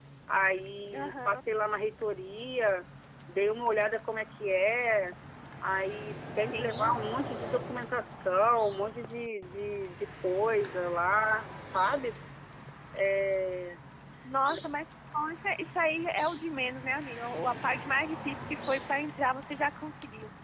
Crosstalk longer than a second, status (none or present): none